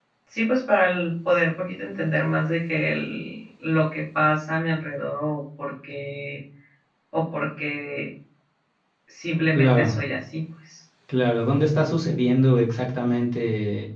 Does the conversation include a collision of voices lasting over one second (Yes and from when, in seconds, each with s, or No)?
No